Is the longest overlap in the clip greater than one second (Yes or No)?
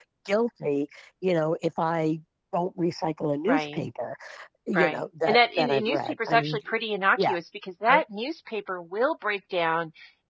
Yes